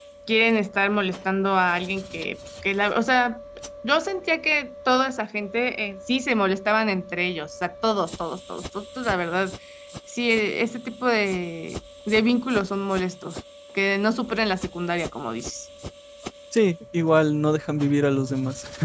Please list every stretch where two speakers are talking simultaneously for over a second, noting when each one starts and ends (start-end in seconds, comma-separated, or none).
none